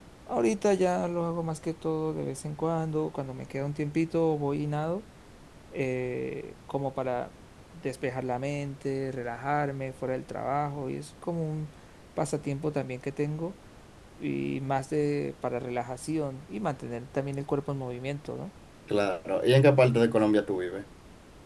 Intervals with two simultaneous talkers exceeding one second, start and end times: none

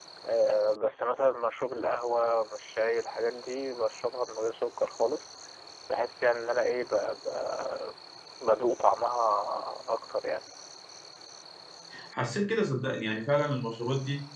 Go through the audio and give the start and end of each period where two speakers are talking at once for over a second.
none

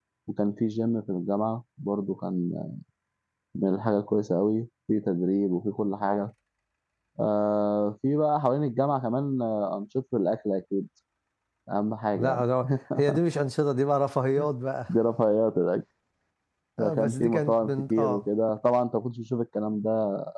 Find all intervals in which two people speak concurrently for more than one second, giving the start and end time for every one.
16.8-18.2

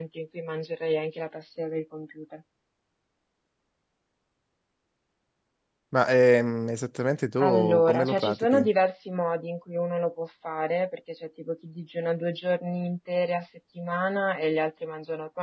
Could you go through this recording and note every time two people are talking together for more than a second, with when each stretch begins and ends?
7.4-8.7

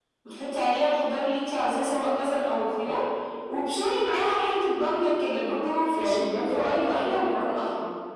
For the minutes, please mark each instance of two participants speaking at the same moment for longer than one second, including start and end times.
6.0-7.6

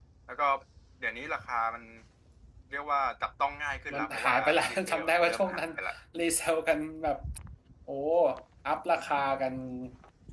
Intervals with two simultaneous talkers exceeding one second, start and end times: 3.9-5.7

